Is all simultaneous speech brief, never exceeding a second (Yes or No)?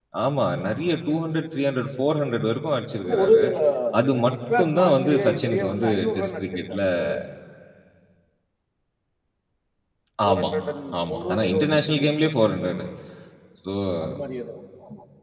No